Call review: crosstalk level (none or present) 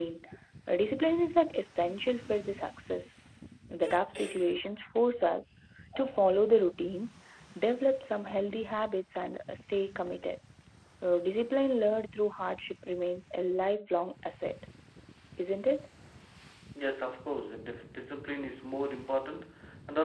none